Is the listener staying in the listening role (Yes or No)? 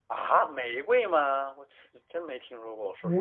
No